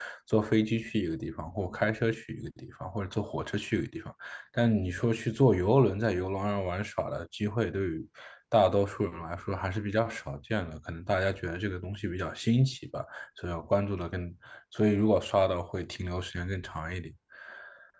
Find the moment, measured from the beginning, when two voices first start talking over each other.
none

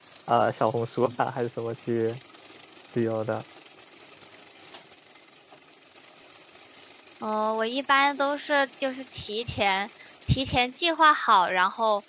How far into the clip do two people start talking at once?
none

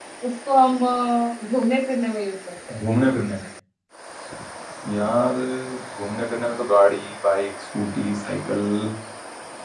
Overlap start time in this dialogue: none

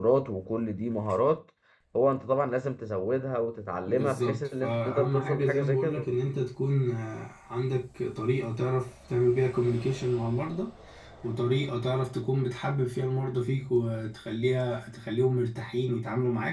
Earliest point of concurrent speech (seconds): 4 s

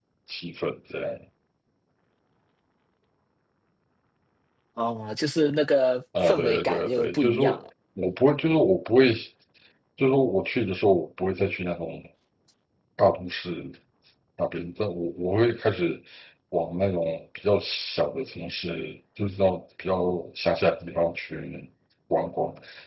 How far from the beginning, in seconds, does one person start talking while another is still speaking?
6 s

